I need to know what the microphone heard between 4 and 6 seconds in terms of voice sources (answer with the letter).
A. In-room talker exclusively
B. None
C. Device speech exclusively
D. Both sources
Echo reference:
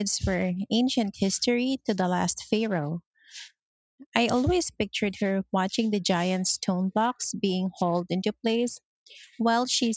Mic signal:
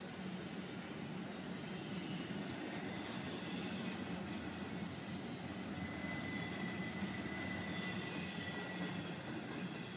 B